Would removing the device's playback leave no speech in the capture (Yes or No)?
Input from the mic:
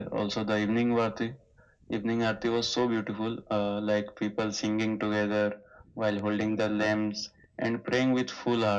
Yes